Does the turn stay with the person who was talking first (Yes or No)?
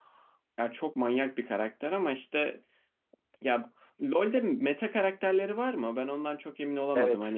No